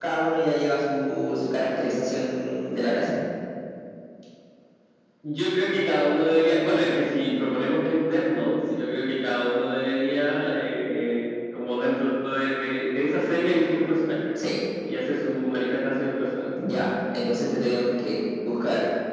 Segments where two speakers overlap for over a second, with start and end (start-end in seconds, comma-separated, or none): none